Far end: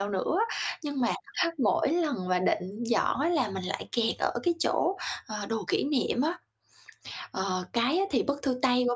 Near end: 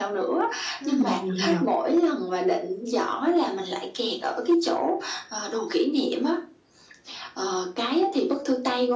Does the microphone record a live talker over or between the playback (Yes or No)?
Yes